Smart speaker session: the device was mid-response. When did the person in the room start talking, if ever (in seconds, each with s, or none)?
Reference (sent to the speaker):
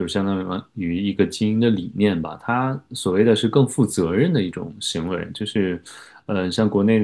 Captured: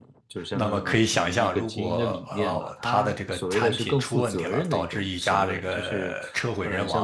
0.5 s